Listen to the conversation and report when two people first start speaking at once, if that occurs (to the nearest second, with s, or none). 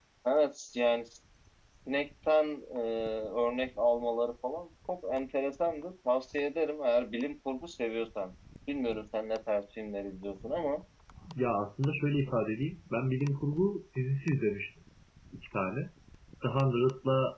none